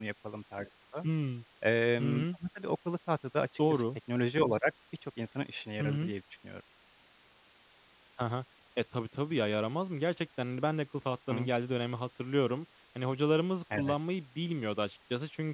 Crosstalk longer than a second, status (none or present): none